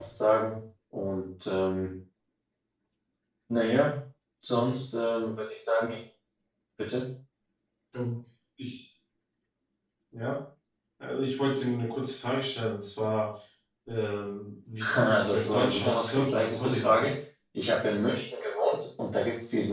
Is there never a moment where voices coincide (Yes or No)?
No